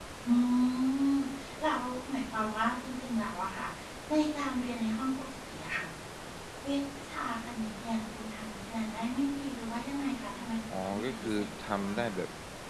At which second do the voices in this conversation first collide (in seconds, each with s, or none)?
10.7 s